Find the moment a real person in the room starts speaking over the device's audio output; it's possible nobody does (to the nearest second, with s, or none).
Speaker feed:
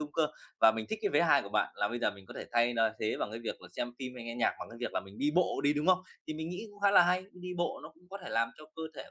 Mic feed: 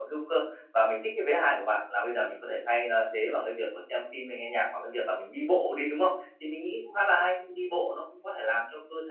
none